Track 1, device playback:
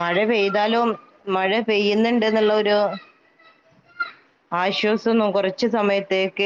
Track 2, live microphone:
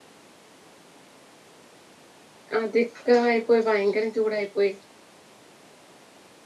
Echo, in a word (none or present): none